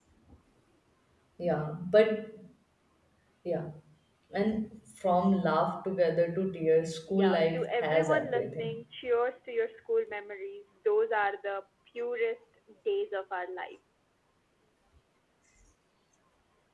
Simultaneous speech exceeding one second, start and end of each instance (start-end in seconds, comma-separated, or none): 7.1-8.8